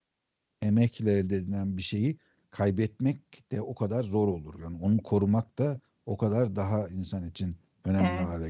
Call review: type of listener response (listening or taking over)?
taking over